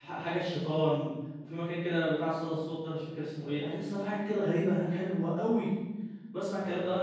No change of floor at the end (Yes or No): Yes